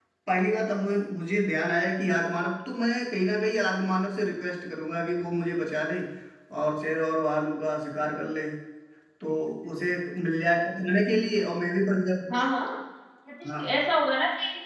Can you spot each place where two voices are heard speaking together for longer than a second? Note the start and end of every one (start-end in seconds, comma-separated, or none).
none